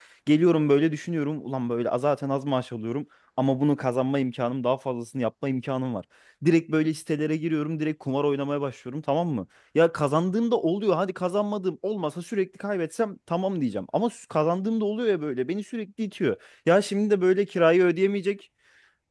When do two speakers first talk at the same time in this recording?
none

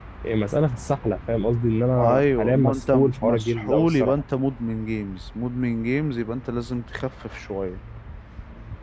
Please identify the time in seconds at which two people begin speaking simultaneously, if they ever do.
1.9 s

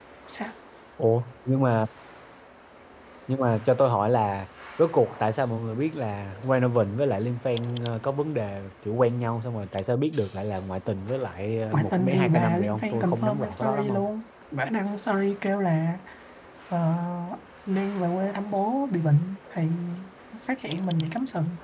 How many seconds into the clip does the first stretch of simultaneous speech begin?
11.7 s

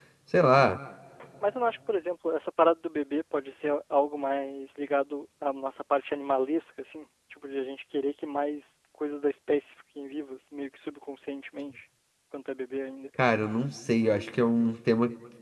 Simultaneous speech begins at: none

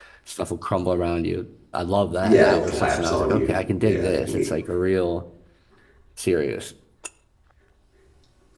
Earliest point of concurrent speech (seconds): 2.2 s

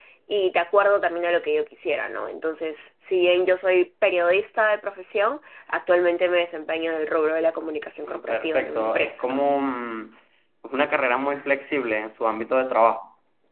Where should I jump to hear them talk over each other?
8.1 s

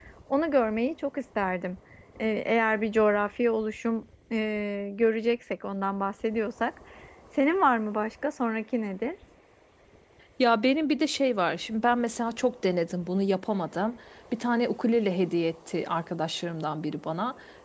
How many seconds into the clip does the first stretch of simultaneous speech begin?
none

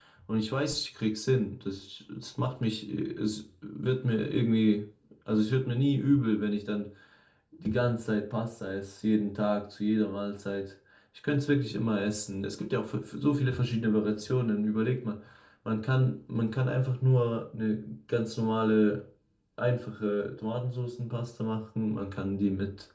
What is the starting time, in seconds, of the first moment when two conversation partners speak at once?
none

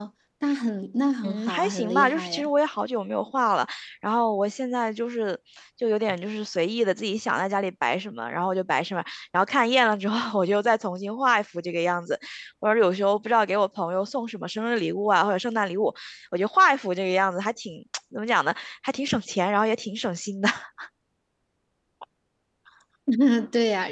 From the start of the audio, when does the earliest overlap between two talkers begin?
1.2 s

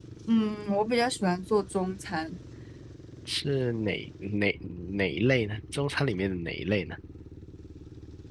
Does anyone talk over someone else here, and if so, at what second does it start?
none

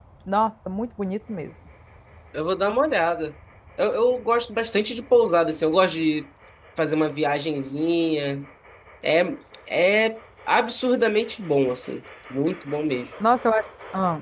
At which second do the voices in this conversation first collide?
none

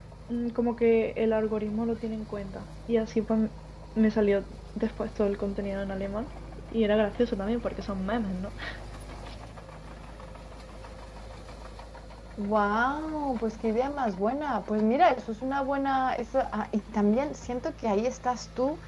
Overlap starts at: none

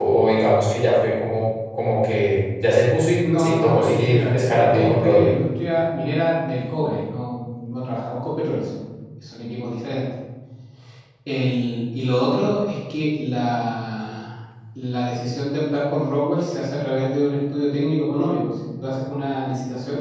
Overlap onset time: 3.2 s

